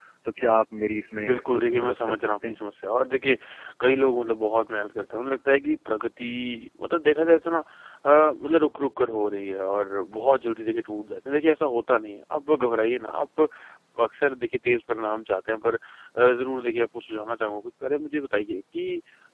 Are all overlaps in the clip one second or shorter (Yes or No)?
No